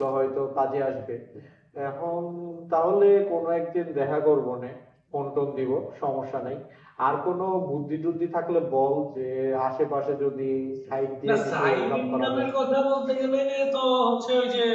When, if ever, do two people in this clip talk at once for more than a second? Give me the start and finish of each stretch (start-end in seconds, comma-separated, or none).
11.3-12.5